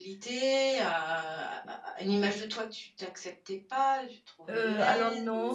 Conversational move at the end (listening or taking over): taking over